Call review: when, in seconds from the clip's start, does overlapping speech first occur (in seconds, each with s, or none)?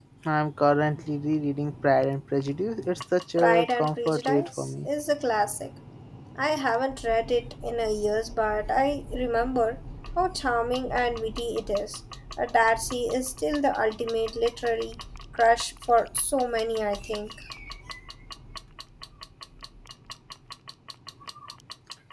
3.4 s